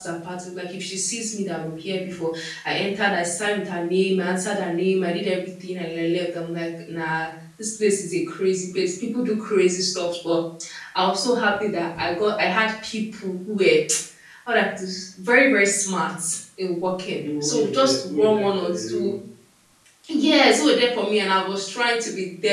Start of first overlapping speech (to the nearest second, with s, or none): 17 s